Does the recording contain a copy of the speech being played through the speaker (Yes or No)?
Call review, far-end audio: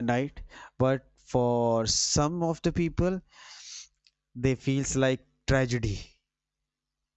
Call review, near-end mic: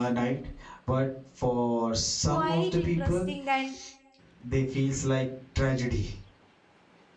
Yes